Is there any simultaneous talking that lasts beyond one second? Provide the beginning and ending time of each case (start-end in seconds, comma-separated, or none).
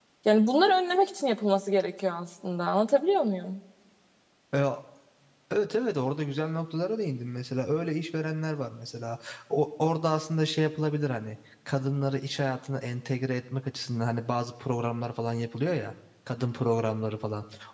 none